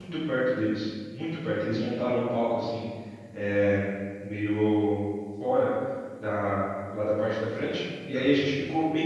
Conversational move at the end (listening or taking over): listening